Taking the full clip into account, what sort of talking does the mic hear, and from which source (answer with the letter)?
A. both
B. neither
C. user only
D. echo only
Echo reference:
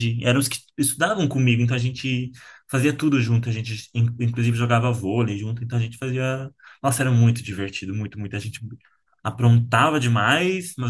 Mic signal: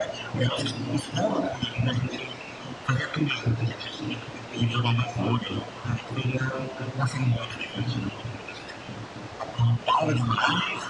D